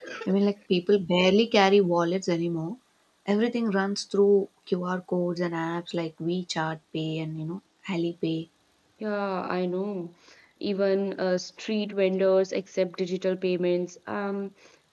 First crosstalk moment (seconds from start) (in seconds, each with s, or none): none